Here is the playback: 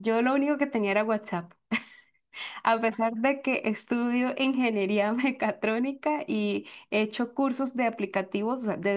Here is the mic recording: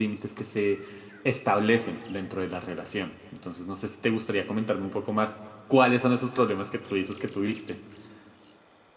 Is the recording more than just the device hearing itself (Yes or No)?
Yes